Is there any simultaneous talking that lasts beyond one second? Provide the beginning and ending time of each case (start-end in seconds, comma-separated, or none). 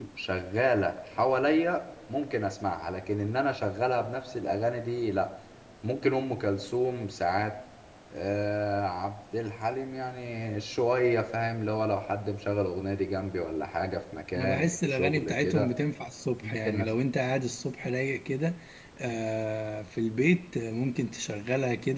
14.3-15.7